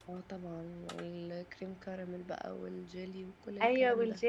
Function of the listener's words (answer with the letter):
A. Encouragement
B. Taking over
B